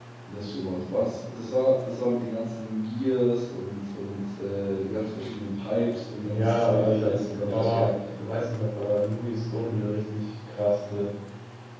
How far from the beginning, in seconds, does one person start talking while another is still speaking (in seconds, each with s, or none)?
6.2 s